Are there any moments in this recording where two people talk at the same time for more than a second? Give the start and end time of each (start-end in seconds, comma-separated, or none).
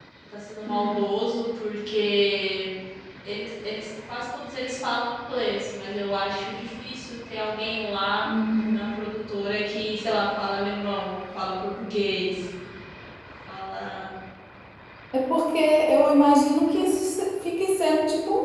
none